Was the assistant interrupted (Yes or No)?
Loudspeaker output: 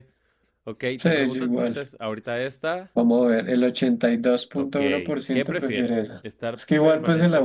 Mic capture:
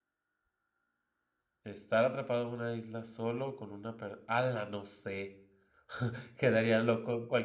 Yes